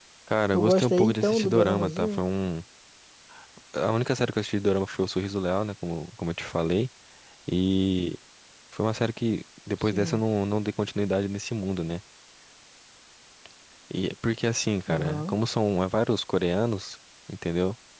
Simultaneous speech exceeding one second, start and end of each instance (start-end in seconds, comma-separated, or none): 0.5-2.2